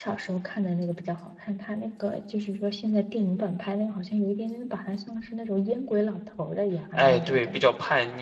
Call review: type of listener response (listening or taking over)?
taking over